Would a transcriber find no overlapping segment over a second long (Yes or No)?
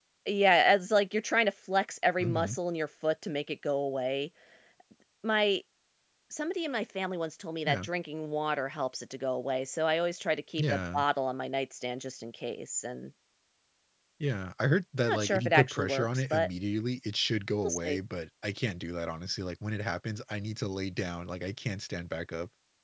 No